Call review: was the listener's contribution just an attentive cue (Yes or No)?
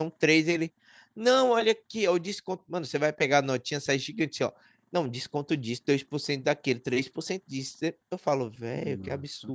No